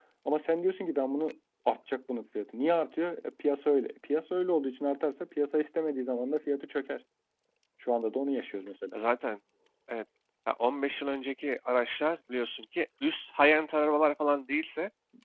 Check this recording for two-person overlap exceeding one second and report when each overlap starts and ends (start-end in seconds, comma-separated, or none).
none